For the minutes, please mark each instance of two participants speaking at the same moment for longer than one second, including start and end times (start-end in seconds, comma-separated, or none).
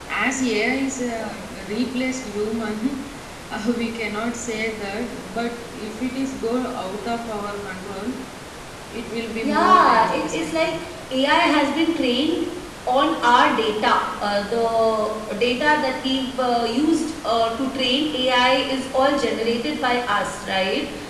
9.4-10.7